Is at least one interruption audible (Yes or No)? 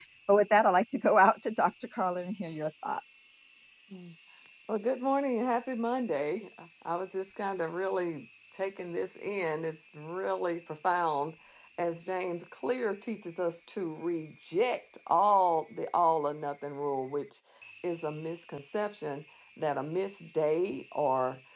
No